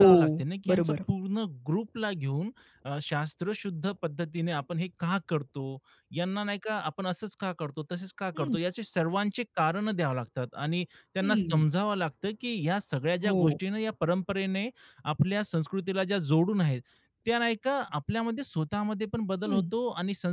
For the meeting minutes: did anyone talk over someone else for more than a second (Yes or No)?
No